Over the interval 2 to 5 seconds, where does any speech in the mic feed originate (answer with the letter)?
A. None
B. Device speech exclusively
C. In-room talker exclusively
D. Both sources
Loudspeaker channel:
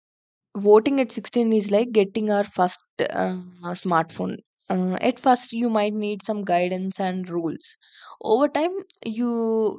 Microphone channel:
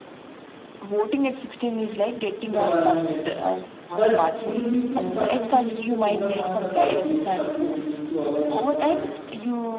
D